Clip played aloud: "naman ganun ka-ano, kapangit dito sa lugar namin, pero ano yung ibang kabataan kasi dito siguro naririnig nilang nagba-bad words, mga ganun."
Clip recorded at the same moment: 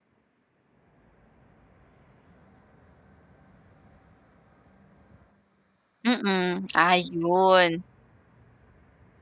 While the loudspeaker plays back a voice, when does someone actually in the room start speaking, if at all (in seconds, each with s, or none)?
6.0 s